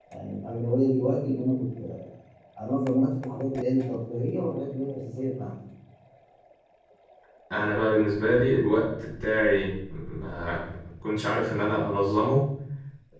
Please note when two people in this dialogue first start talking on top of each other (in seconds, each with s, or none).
none